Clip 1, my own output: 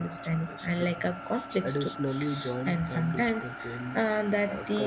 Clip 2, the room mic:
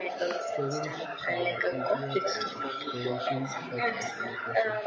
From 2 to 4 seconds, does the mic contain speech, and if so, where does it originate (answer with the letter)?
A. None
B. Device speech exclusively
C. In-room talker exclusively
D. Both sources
D